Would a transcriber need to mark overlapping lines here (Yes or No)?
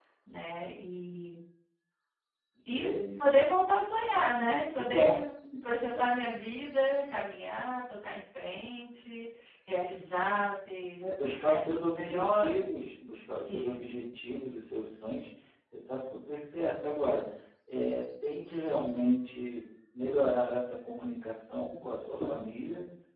Yes